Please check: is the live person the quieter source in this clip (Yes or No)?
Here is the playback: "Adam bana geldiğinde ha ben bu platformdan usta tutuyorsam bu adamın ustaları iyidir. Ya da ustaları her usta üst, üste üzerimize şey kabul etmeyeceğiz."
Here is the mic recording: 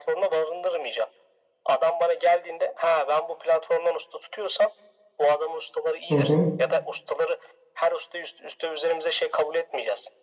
No